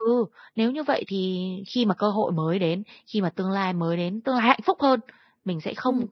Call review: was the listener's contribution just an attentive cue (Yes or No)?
Yes